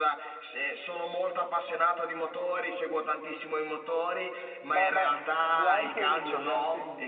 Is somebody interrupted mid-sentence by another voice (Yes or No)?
Yes